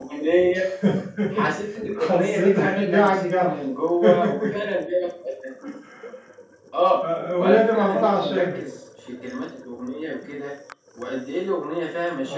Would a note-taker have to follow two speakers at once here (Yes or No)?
Yes